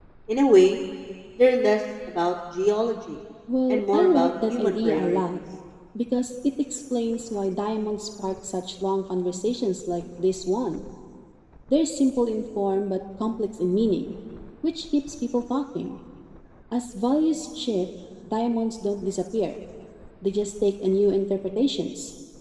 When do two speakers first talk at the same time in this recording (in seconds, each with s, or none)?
3.7 s